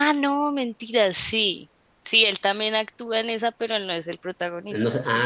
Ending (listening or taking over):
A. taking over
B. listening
A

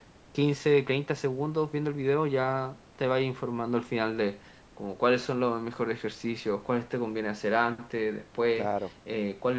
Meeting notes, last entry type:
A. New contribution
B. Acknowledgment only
B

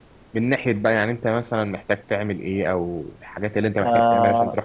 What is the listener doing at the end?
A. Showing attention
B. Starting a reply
B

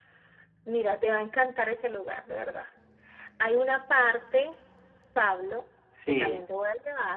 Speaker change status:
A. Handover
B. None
B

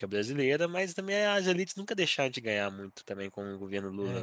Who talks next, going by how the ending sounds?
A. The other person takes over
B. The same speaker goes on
A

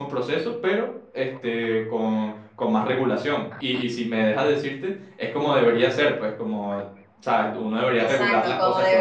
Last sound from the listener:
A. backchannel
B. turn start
B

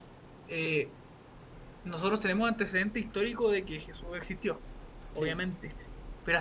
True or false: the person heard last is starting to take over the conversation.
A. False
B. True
A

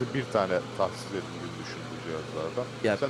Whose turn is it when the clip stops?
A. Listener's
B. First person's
B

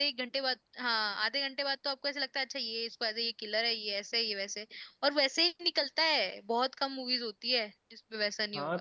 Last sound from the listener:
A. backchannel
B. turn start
B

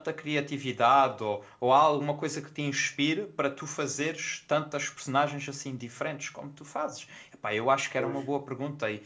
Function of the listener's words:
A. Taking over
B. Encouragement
B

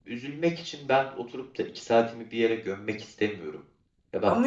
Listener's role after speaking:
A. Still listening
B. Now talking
B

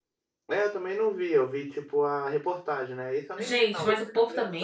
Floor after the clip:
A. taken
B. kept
A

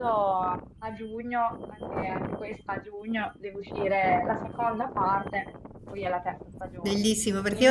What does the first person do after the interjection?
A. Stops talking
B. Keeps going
A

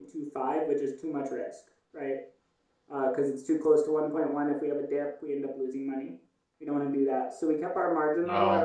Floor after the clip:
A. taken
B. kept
B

